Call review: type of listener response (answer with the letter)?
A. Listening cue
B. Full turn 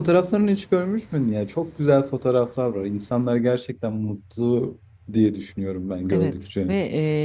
B